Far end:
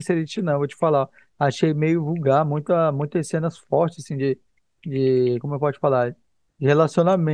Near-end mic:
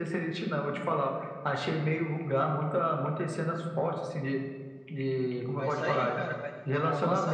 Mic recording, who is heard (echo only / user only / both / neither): both